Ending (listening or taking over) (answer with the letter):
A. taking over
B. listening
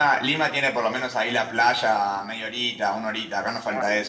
A